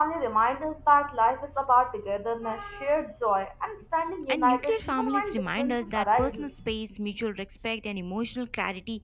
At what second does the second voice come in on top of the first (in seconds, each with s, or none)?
4.3 s